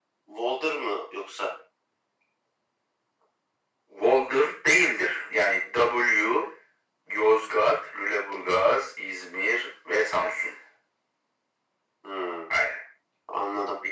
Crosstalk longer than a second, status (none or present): none